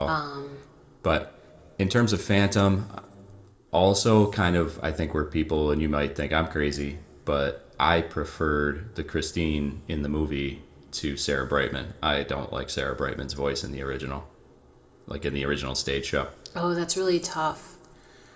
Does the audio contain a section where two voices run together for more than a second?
No

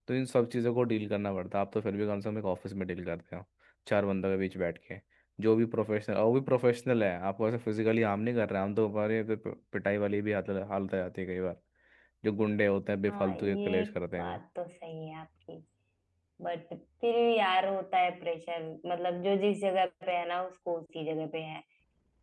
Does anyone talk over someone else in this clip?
Yes, from 13.1 s

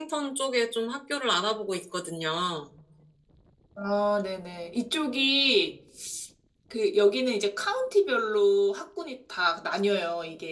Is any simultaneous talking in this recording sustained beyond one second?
No

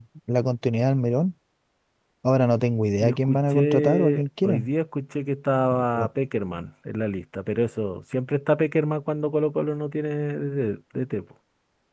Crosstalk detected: Yes, from 3.0 s

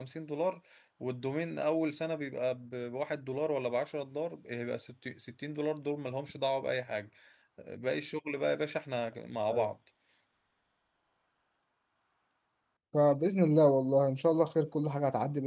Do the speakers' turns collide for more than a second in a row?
No

